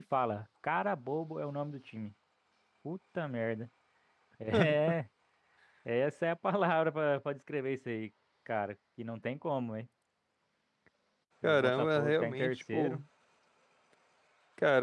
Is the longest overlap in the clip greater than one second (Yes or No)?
Yes